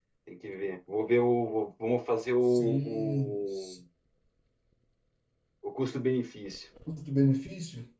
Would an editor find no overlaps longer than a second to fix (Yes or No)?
No